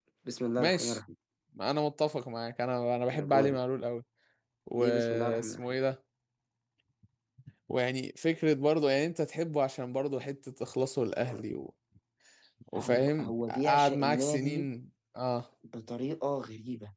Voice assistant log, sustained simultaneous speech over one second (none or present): present